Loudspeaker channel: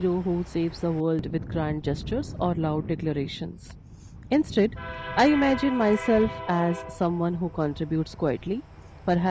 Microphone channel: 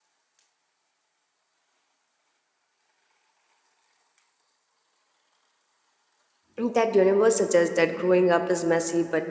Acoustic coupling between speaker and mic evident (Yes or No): No